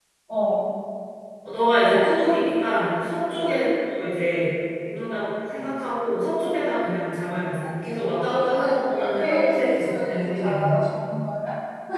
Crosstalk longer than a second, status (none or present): present